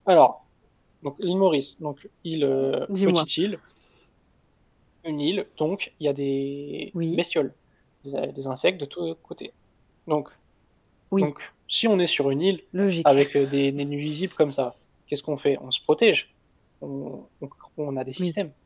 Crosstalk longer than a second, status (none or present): none